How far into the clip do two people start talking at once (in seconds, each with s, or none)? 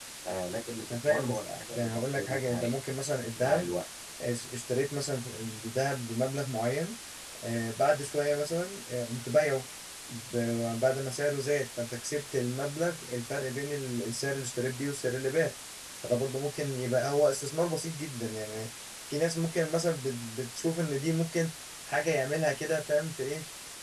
0.9 s